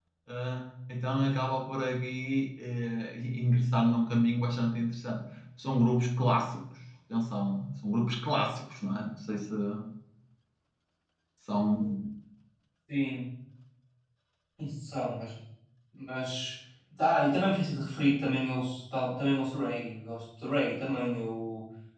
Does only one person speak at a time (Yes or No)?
Yes